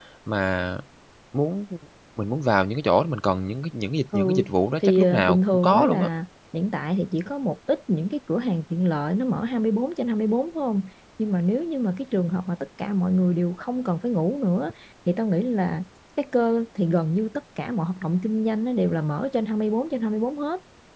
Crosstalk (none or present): present